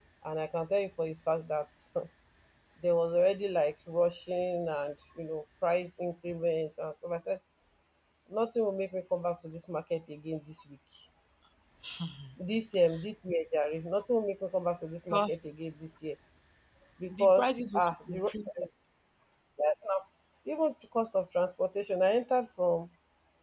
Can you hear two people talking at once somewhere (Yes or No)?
Yes